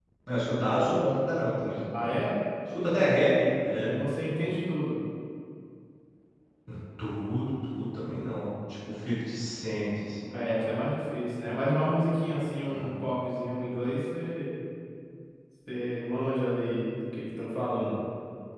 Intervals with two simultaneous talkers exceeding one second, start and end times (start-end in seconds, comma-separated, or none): none